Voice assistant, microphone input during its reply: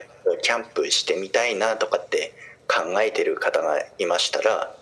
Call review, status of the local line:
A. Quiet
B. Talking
A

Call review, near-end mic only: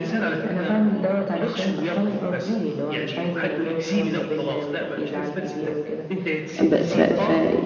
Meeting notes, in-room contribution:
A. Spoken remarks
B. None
A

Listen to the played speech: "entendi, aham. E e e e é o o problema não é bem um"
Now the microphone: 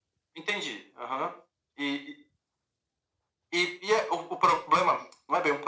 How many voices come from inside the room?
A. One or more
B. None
B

